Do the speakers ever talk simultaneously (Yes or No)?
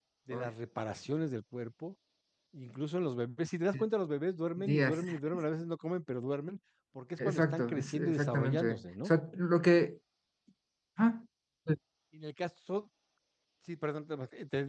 Yes